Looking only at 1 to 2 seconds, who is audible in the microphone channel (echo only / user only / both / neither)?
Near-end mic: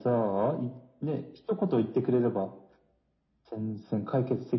echo only